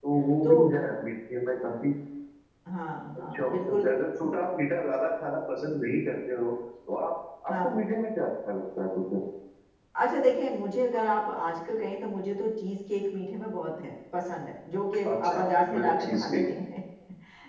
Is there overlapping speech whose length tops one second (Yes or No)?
Yes